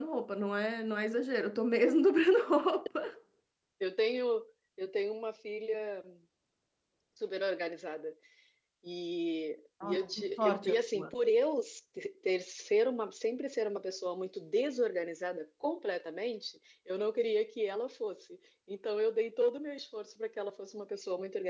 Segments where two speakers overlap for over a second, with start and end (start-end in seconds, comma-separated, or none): 9.8-11.1